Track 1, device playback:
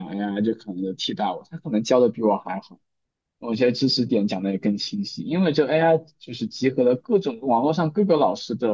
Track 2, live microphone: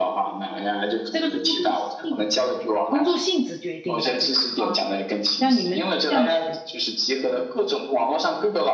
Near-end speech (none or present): present